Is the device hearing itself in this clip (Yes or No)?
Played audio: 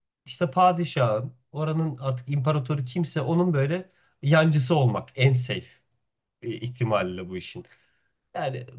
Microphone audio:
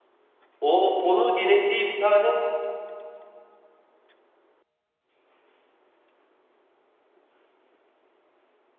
No